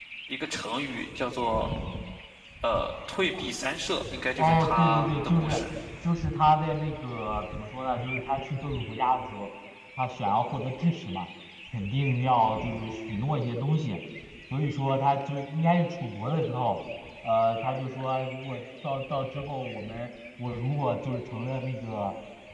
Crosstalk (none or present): present